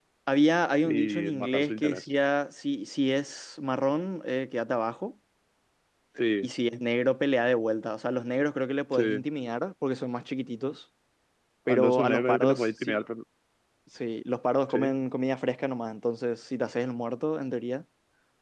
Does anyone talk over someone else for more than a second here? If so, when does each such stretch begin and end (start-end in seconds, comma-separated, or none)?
0.8-2.1, 11.7-13.0